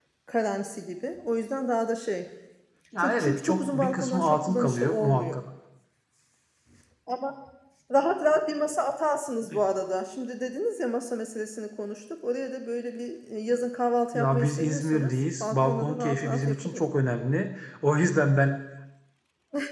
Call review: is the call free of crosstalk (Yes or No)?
No